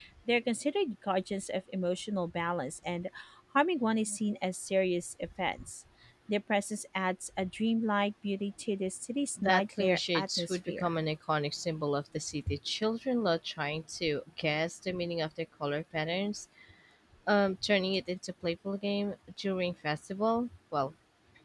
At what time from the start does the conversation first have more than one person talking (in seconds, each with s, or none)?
9.4 s